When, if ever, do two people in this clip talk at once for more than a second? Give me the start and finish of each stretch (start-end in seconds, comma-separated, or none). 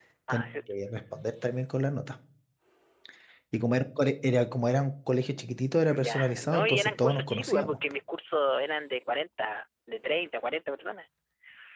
6.0-7.8